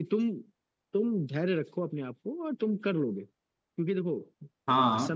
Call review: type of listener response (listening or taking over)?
listening